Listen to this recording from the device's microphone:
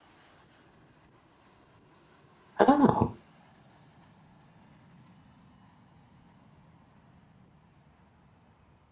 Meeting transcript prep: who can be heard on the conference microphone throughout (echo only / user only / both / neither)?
user only